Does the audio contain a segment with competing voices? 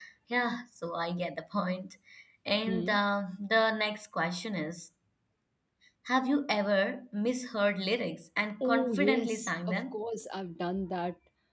Yes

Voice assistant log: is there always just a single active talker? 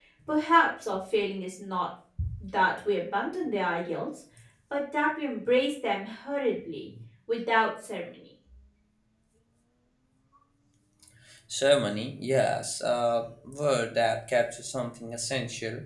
Yes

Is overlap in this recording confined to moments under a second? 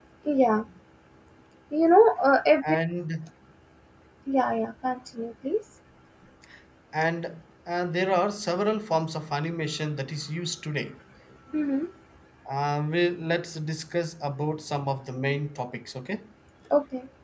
Yes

